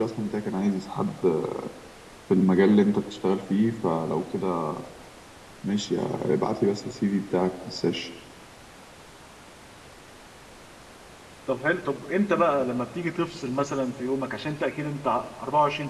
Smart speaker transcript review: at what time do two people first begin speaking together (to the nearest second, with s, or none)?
none